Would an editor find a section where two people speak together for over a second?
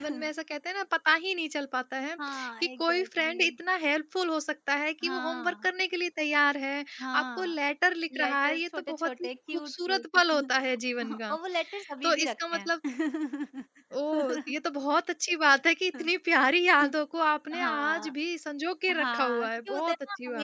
Yes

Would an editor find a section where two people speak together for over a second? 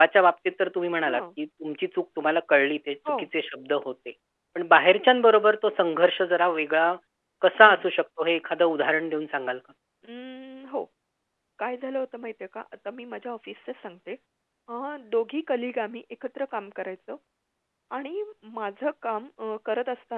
No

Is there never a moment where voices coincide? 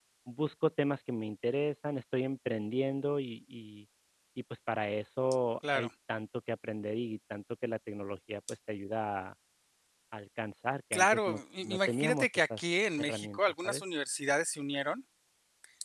No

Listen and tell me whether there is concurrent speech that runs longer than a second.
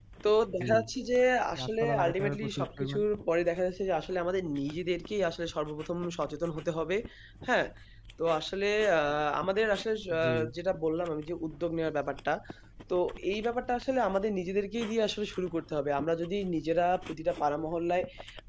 Yes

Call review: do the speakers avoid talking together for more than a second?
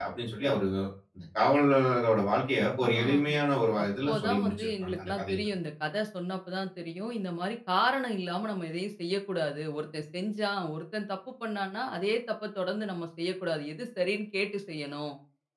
No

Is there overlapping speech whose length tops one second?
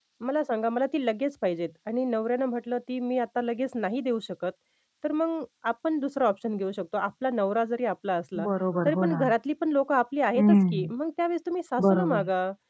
No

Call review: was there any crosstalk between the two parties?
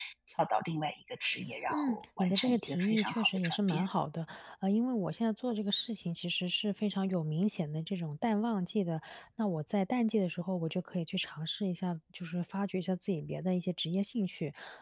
Yes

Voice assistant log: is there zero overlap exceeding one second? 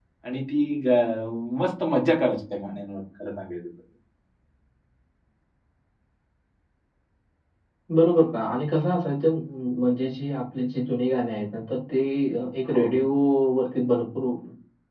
Yes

